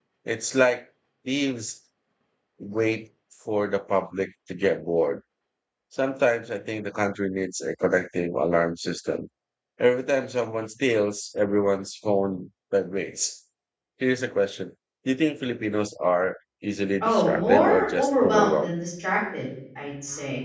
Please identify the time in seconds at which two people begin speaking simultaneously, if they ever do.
17.0 s

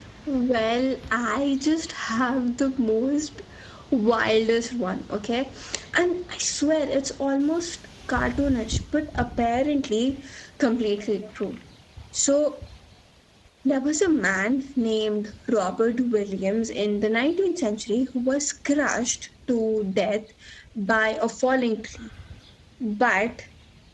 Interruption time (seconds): none

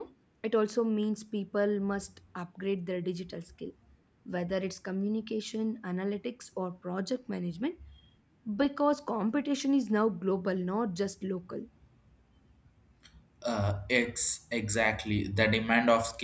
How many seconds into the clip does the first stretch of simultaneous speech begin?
none

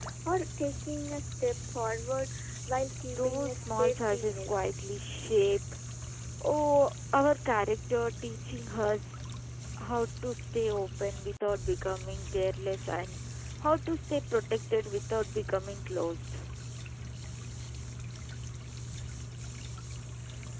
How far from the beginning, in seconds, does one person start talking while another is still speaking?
3.2 s

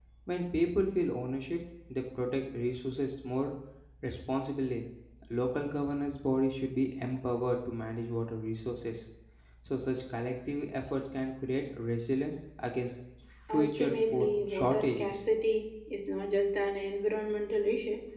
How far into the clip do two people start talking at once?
13.5 s

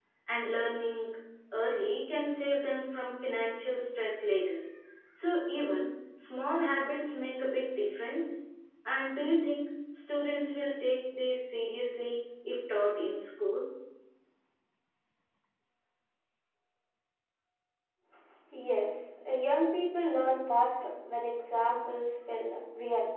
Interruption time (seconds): none

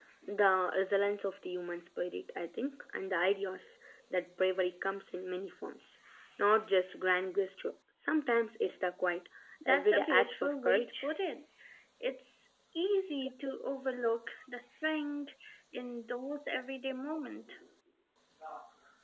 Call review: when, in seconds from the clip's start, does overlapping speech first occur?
9.6 s

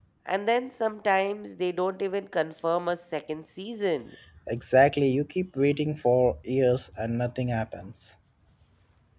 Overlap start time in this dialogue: none

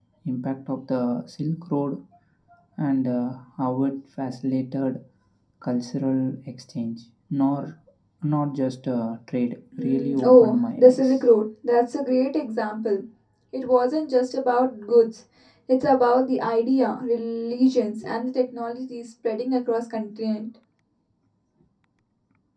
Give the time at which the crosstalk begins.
9.7 s

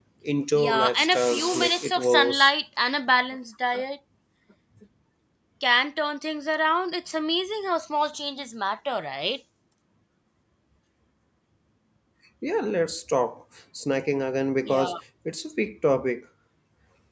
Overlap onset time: 0.6 s

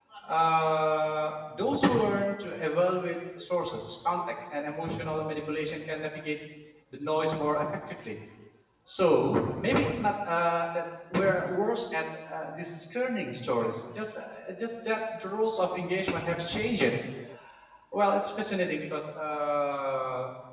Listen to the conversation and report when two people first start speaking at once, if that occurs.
none

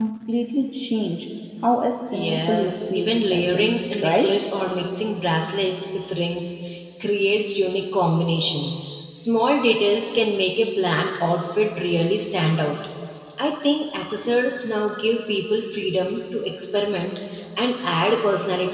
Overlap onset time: 2.1 s

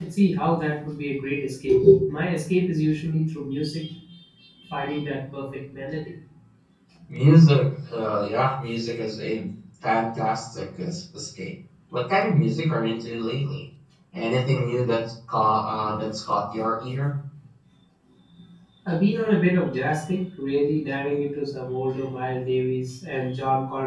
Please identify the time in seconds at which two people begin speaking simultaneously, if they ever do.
none

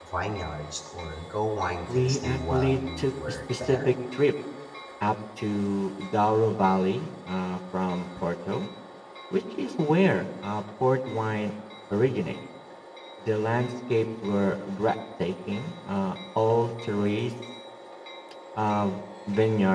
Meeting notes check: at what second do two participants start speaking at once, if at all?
1.9 s

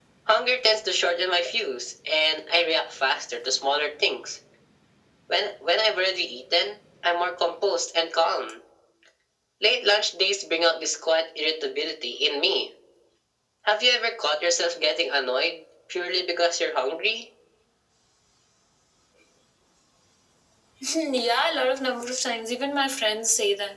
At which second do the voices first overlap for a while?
none

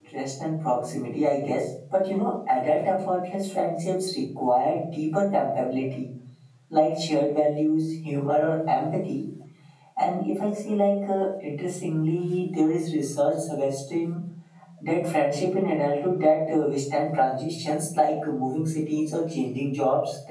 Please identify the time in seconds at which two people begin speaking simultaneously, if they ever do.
none

